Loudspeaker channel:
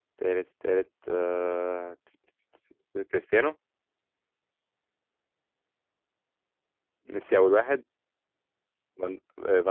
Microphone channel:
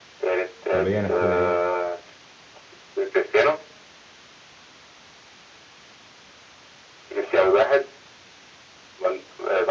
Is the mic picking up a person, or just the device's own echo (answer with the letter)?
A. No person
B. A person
B